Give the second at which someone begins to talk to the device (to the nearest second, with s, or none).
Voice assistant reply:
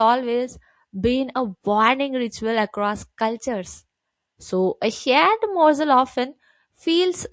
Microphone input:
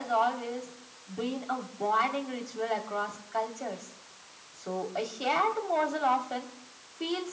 none